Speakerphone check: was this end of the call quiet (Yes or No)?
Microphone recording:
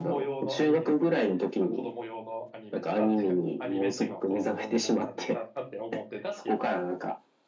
No